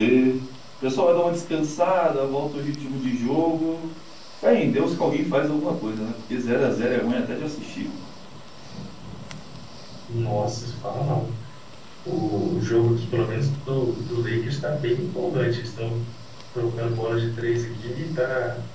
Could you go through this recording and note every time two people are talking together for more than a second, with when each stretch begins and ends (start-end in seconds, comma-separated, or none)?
none